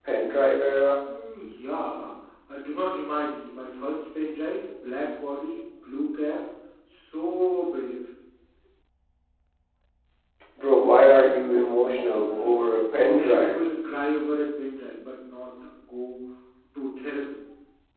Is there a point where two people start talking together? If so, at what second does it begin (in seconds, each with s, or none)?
12.2 s